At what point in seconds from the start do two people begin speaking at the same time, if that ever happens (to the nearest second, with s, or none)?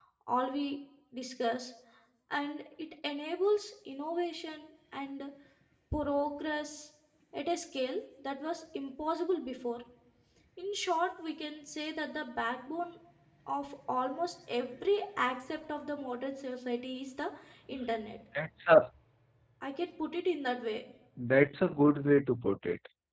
none